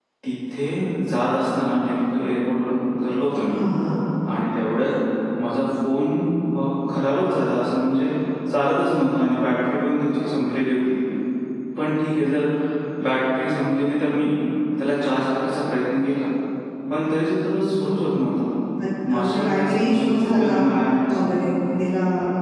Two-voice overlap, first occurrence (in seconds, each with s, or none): 19.1 s